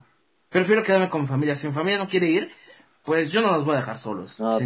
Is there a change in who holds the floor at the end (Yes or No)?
Yes